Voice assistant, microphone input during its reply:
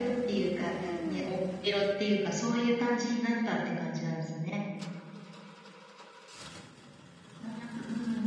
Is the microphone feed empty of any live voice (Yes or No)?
No